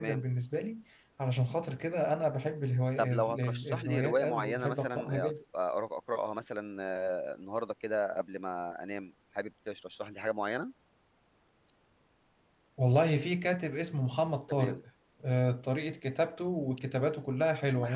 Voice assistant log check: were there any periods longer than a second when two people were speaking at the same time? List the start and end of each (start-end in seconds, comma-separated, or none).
3.0-5.3